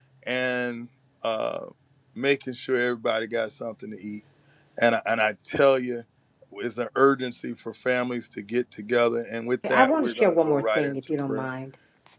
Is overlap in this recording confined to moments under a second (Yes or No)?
No